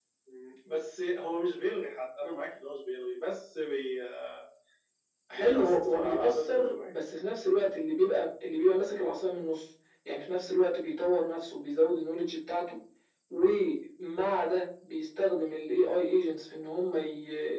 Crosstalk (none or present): present